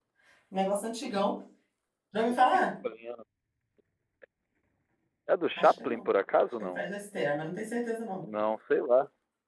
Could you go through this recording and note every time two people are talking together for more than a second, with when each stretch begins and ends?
none

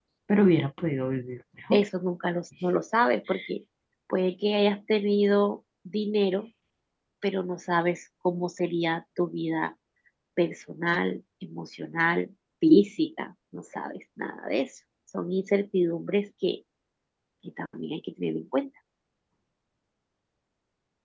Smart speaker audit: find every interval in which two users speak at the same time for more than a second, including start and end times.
none

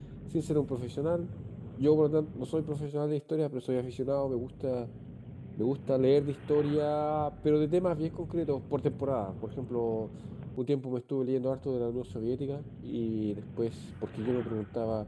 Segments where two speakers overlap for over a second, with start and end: none

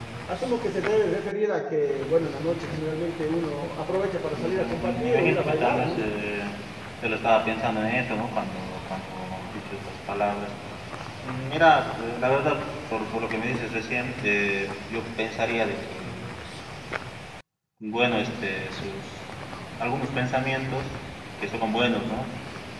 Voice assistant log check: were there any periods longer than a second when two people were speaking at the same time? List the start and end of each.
4.3-6.0

